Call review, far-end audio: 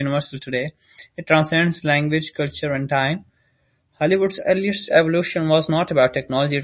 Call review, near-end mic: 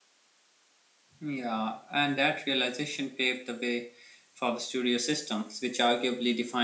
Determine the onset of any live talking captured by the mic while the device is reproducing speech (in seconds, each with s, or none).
1.2 s